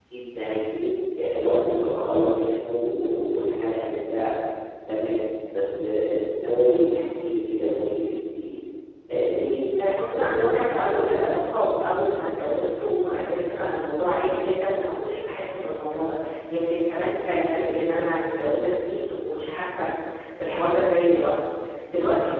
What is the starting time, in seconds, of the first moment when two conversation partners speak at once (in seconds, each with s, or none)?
9.8 s